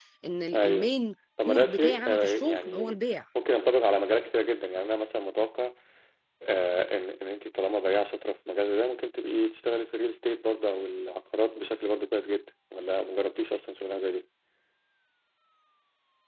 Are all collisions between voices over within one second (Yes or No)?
No